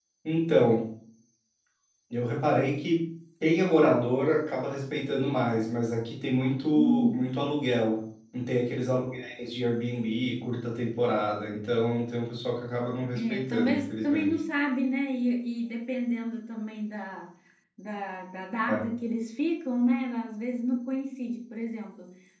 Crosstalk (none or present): present